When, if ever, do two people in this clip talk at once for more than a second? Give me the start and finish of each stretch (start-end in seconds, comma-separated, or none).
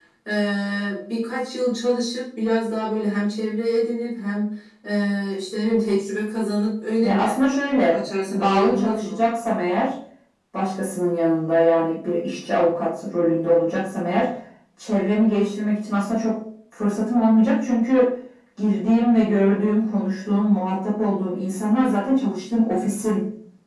7.9-9.2